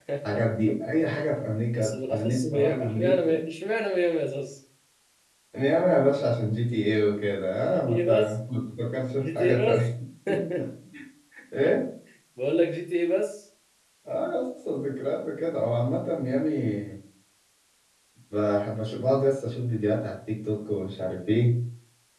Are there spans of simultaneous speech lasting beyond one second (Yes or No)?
Yes